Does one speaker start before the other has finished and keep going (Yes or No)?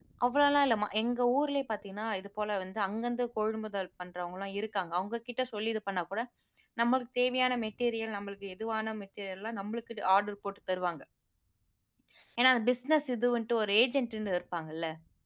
No